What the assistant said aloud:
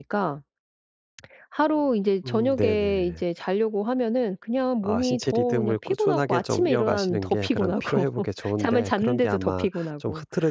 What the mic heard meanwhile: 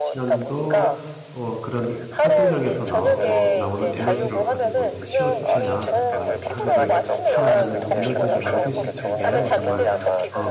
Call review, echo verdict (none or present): present